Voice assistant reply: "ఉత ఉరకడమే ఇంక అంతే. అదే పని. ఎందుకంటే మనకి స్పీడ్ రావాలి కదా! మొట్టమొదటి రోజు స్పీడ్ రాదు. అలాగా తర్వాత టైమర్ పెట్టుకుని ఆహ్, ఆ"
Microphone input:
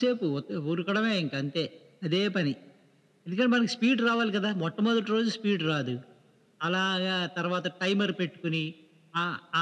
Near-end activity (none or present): none